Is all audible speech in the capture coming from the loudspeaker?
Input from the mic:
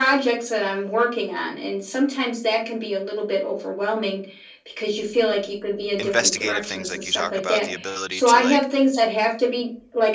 No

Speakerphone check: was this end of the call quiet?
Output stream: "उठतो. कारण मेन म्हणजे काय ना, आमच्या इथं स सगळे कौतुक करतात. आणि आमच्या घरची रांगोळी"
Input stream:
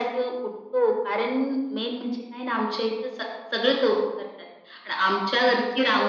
Yes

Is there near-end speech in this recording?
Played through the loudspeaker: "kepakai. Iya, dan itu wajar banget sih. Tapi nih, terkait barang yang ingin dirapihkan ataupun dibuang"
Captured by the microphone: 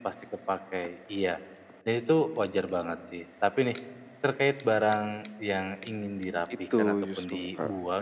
Yes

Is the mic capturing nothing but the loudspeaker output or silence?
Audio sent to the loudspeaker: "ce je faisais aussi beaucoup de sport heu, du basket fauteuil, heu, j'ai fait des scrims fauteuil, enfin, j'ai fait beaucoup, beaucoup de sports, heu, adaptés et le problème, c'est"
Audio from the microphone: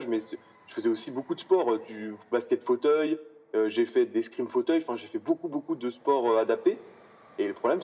Yes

